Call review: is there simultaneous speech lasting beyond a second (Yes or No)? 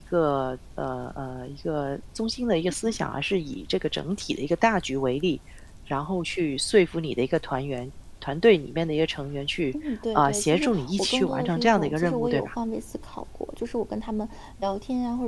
Yes